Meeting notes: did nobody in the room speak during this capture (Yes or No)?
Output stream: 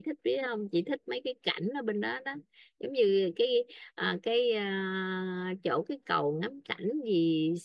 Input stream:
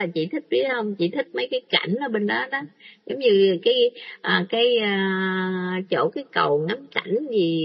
Yes